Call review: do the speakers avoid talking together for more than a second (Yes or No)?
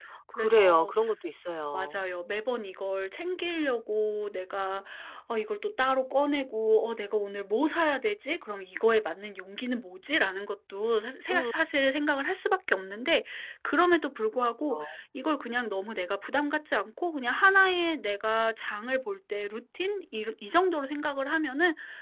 Yes